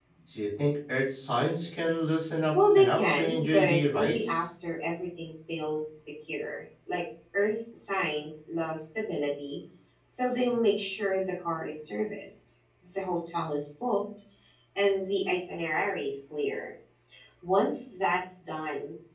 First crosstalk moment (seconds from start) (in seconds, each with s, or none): 2.5 s